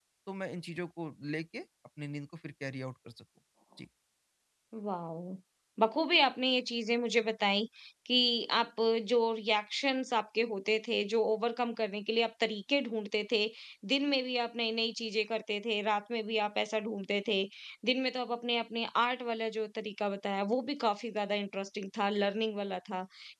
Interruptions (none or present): none